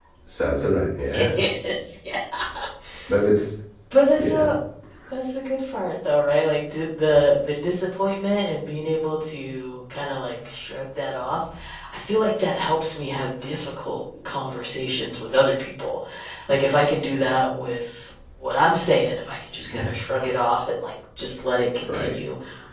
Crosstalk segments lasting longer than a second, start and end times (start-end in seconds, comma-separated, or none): none